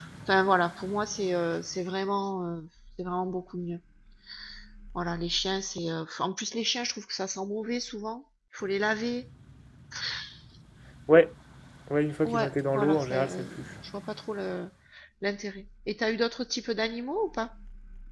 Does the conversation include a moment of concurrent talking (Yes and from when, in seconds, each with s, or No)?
Yes, from 12.2 s